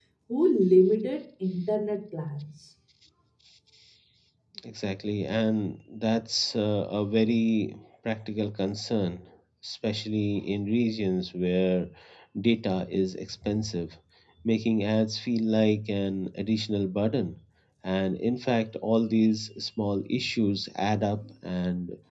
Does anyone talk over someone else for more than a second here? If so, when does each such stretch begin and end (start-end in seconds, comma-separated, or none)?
none